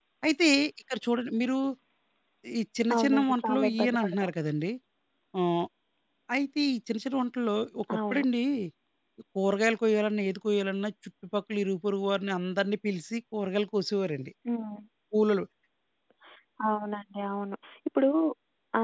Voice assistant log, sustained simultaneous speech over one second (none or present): present